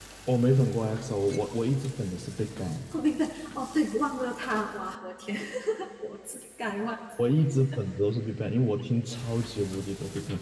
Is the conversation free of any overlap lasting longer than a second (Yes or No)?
Yes